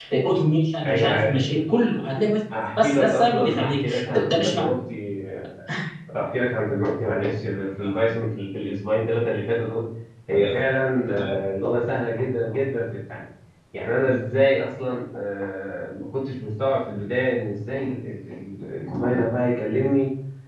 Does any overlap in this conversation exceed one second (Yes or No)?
Yes